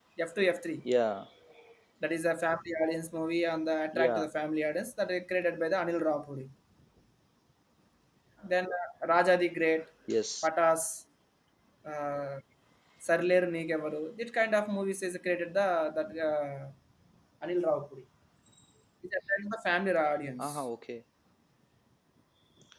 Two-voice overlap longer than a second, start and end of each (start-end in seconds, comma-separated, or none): none